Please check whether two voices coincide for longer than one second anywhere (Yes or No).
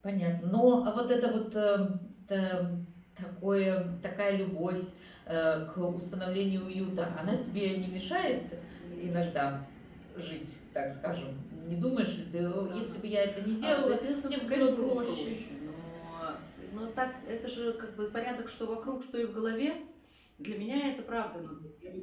Yes